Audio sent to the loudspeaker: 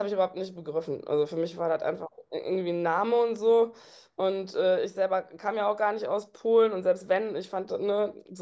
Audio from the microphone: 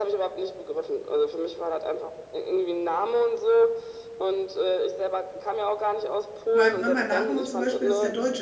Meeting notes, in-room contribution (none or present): present